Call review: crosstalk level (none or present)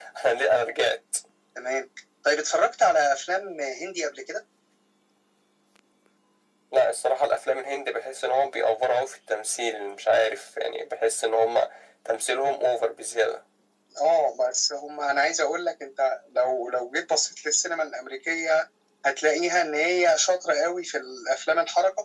none